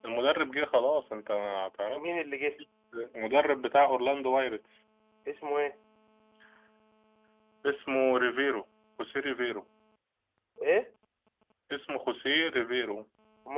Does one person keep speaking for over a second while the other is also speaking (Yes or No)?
No